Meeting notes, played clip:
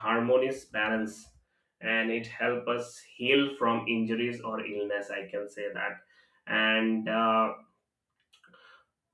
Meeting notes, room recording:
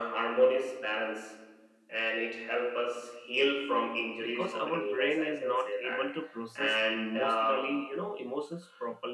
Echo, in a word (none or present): present